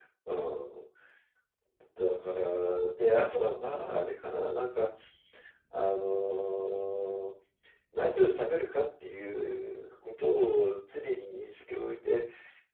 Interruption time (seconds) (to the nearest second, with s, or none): none